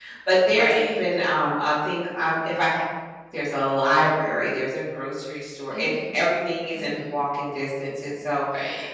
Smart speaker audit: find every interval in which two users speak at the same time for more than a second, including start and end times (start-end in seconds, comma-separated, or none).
none